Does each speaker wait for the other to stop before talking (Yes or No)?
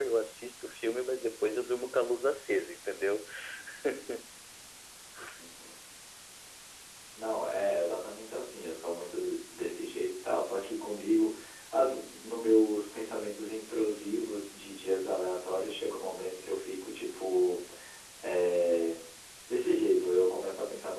Yes